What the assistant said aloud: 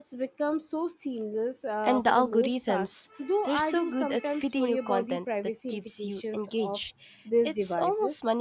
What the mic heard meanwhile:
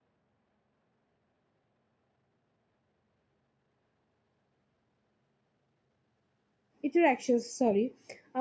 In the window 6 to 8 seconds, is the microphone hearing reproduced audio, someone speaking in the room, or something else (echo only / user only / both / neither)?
user only